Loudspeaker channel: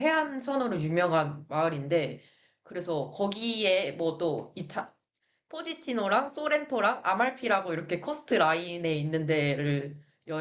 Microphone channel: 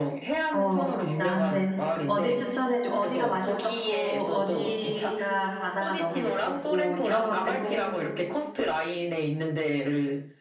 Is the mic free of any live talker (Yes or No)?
No